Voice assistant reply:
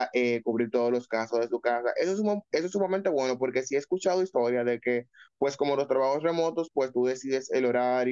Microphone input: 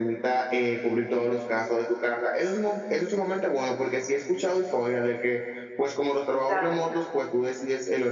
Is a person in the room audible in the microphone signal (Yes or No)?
Yes